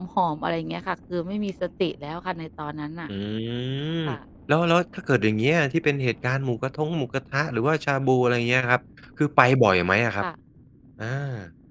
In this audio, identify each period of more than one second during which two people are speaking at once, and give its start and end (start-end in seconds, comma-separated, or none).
none